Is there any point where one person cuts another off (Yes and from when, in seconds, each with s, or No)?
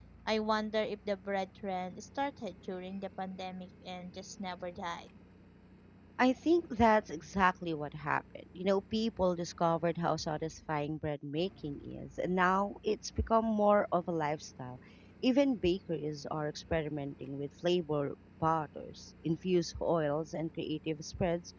No